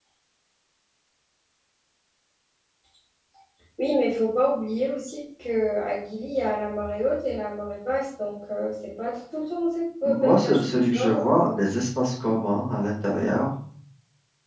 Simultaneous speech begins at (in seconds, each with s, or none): 10.0 s